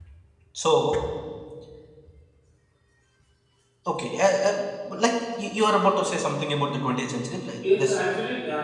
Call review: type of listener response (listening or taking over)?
taking over